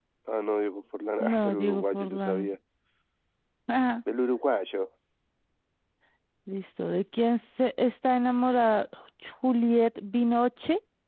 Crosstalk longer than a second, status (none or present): present